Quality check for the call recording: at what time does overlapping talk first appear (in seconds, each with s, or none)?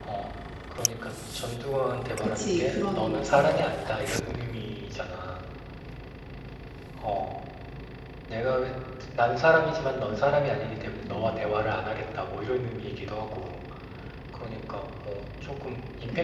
2.2 s